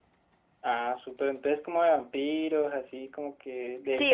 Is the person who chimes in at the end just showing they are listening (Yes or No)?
No